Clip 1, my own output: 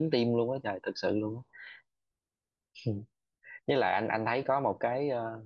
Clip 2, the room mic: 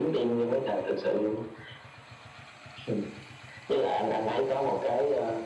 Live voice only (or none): none